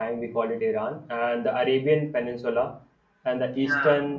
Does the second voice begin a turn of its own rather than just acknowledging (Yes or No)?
No